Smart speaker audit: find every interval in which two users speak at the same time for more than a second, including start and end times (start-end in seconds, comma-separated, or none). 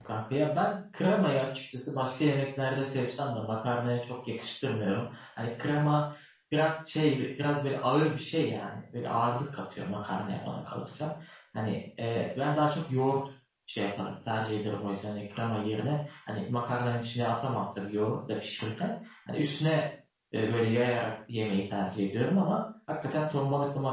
none